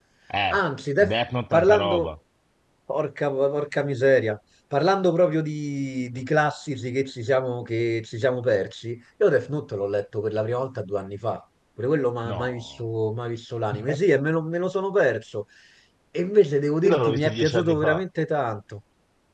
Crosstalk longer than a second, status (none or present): present